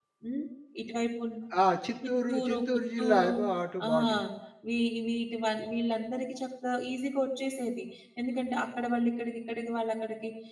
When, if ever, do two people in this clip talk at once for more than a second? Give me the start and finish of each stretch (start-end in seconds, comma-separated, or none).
2.1-3.3